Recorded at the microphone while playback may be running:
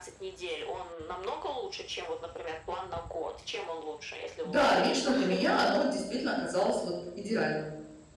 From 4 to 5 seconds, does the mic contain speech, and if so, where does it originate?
both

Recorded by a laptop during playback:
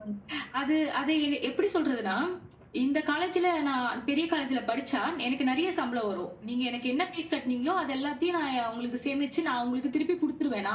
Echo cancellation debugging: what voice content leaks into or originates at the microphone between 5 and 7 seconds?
echo only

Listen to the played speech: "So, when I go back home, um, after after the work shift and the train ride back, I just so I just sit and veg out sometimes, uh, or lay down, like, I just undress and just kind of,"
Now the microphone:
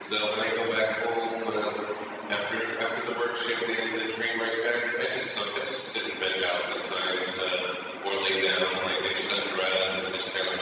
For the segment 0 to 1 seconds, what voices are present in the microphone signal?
echo only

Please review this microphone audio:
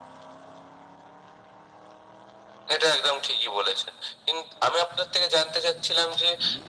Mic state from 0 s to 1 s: neither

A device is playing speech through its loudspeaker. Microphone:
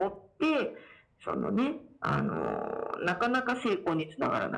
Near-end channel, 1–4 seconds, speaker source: echo only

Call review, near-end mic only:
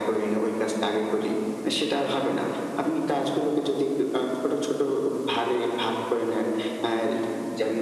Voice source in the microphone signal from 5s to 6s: echo only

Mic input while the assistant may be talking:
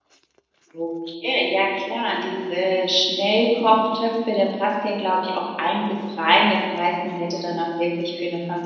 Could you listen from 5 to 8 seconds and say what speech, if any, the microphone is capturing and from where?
user only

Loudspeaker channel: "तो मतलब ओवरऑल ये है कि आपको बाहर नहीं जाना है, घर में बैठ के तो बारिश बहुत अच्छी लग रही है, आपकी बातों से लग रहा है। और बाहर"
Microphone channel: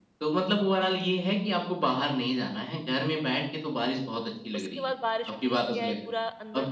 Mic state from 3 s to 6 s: both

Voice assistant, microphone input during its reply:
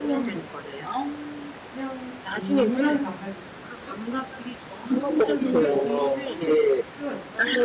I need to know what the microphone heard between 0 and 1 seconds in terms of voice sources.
both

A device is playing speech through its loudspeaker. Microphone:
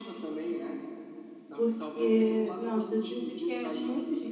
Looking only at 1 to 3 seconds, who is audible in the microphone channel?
both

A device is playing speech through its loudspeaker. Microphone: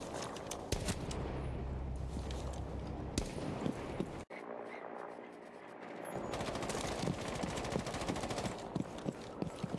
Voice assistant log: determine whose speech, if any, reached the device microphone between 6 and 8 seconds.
neither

